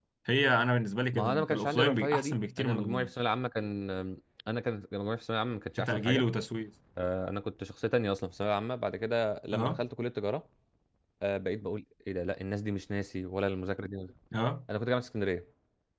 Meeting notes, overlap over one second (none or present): present